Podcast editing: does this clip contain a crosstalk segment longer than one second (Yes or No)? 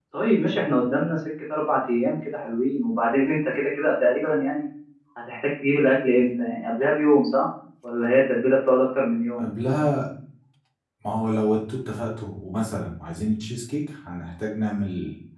No